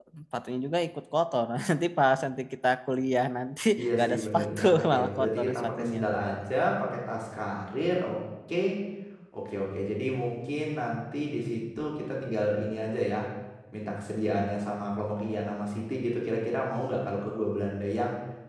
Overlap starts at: 3.8 s

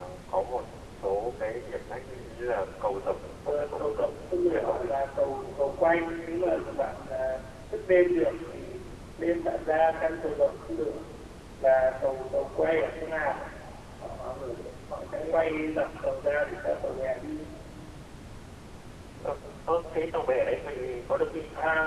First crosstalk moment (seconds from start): 3.5 s

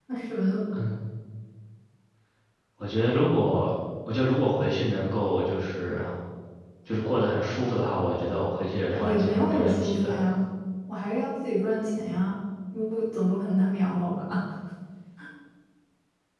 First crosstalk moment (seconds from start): 8.9 s

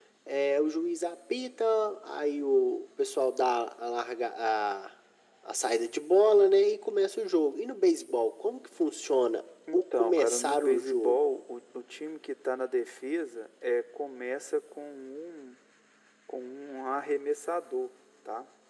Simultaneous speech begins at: 9.7 s

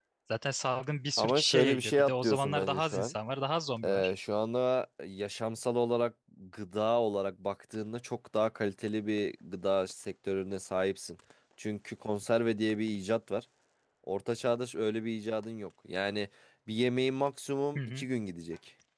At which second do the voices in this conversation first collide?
1.2 s

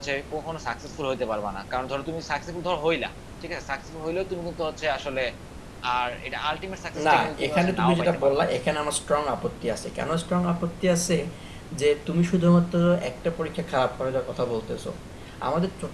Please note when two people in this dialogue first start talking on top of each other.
7.0 s

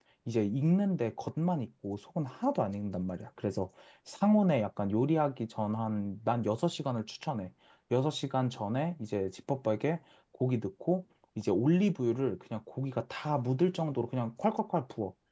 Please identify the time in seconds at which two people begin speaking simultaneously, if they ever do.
none

